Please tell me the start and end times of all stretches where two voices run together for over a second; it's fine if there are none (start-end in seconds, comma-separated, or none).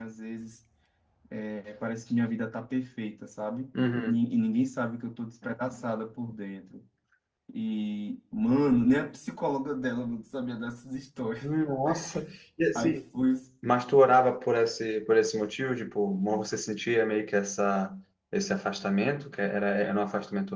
none